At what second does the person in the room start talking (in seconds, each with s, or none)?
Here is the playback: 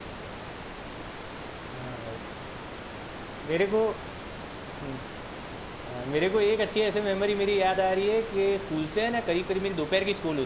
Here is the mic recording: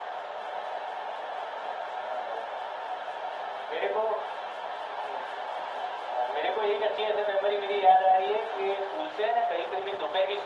none